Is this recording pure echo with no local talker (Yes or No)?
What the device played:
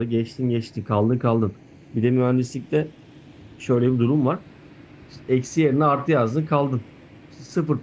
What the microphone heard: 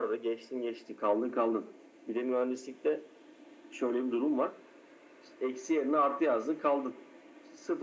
Yes